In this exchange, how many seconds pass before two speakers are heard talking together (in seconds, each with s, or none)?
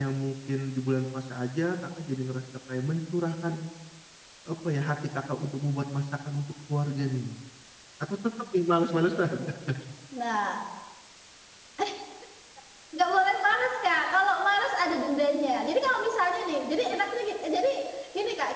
none